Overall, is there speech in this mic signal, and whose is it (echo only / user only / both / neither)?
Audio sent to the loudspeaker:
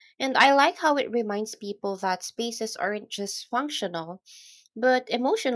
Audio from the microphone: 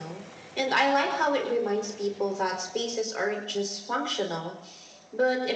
echo only